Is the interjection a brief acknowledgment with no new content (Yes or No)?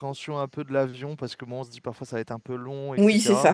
No